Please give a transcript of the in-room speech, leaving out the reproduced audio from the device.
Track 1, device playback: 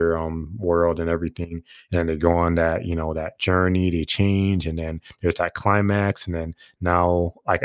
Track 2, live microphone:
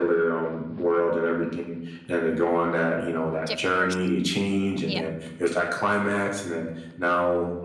Different person. Yeah.

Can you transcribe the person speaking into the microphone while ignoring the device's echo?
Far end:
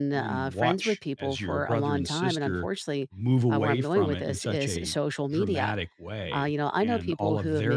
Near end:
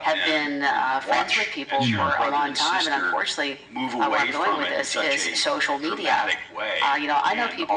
you know

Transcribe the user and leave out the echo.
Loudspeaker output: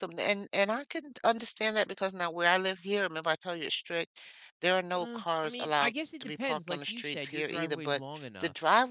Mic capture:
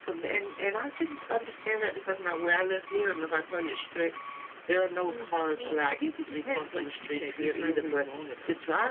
none

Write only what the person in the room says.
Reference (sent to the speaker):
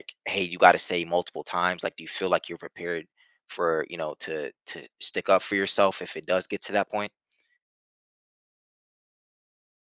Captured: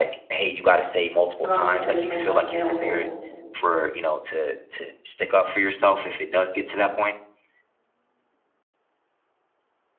i'm always going to make myself available

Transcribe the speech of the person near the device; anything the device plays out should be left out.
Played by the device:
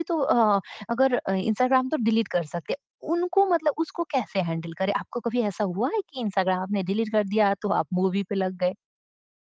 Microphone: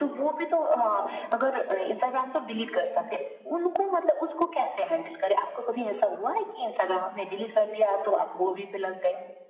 none

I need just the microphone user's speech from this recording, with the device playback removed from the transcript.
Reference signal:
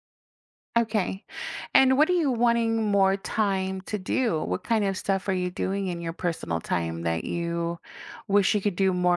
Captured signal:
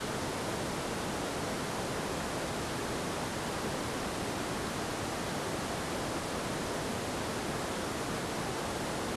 none

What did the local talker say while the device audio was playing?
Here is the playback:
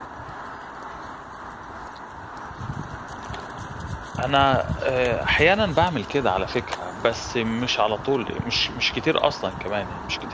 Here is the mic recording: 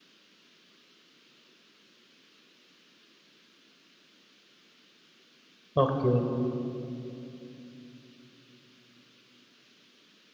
أوكي،

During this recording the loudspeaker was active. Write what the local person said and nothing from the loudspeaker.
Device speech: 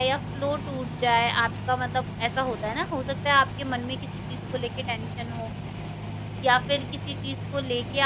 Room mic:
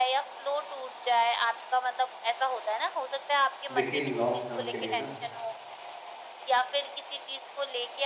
देखिए लॉन्ग टर्म के लिए ना

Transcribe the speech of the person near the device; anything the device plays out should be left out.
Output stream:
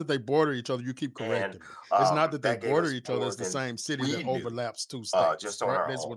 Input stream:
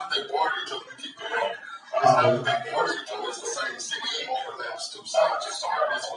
Okay.

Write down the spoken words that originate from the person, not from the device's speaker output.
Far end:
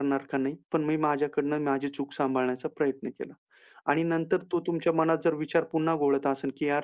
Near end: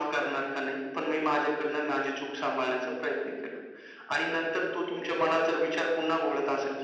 none

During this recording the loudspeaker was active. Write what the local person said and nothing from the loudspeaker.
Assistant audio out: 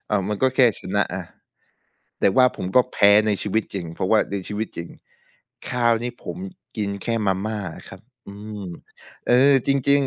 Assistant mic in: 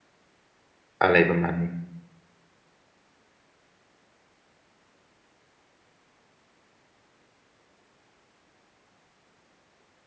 อะไรประมาณนี้

